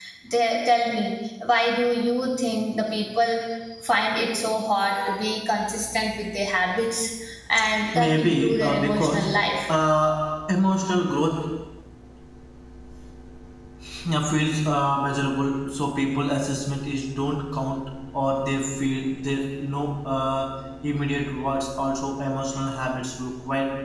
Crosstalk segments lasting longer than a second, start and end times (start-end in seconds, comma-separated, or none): 7.9-9.3